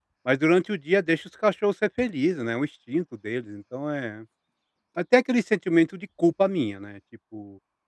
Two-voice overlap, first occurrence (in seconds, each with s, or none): none